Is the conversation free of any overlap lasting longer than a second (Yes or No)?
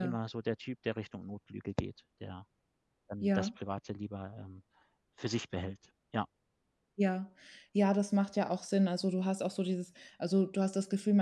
Yes